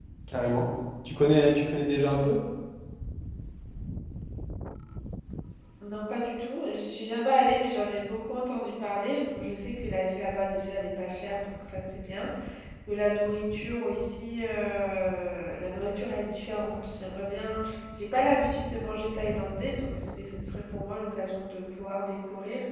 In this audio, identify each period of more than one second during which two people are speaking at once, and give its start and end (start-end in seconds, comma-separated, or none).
none